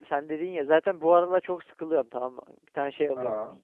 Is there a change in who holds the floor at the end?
No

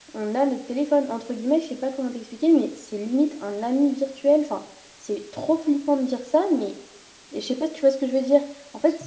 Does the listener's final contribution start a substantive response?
No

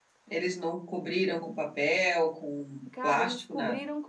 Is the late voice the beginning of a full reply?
Yes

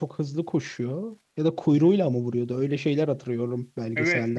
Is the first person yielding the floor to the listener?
Yes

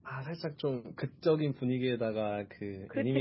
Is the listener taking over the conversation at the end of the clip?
No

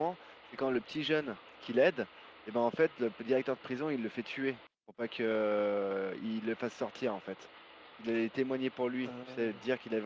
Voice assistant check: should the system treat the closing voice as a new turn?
No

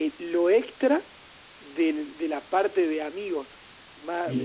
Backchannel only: Yes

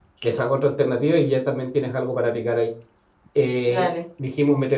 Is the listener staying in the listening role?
Yes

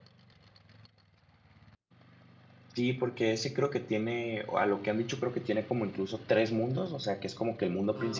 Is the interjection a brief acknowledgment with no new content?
Yes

